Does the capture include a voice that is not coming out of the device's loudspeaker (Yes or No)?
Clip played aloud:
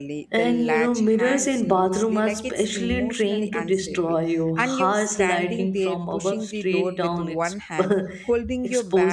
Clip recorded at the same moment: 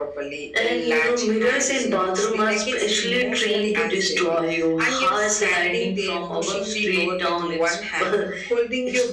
No